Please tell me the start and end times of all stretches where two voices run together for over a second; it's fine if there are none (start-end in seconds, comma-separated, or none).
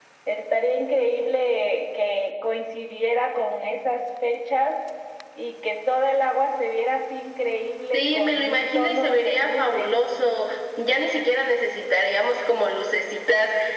7.9-9.9